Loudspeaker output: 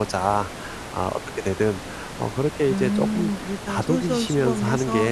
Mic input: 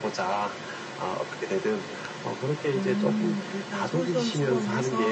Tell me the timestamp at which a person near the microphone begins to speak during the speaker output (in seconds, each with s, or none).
none